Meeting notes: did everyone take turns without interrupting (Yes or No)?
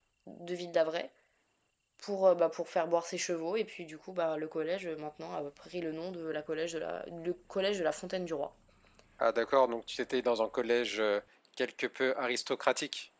Yes